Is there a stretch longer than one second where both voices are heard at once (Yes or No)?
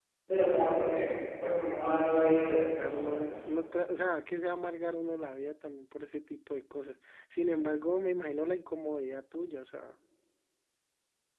Yes